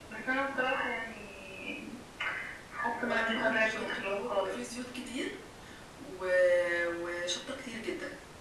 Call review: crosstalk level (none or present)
present